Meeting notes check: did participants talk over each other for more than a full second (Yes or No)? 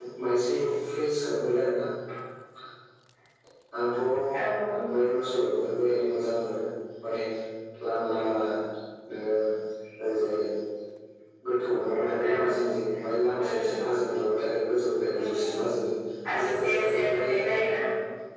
Yes